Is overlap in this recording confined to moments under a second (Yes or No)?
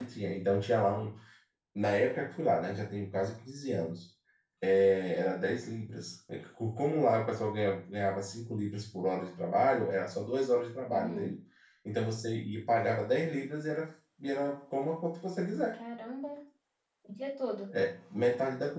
Yes